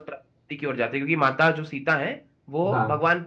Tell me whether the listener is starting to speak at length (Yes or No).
No